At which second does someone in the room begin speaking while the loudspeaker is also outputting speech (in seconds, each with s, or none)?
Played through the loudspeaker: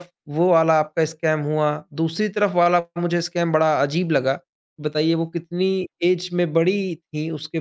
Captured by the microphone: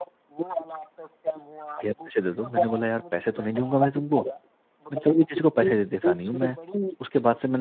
1.8 s